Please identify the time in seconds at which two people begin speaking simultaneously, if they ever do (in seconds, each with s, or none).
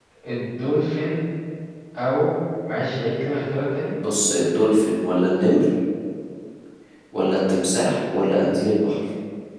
none